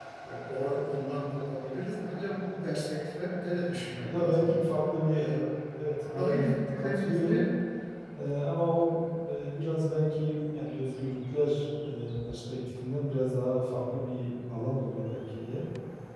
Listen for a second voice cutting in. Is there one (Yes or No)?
Yes